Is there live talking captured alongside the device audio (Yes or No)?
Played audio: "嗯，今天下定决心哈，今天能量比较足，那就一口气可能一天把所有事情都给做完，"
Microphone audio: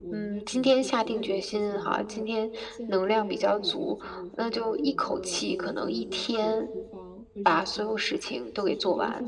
Yes